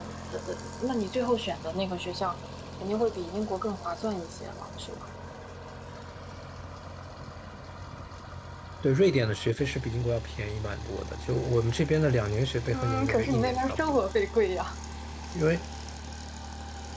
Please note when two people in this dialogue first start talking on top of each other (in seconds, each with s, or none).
12.7 s